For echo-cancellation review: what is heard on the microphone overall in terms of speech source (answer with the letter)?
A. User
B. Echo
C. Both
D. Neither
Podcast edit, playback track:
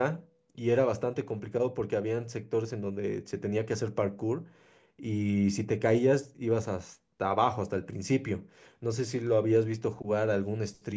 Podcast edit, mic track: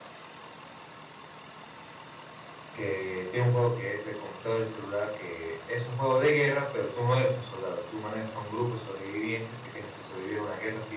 A